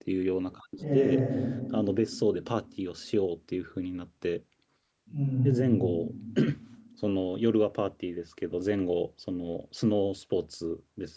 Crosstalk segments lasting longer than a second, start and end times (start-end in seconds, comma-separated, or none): none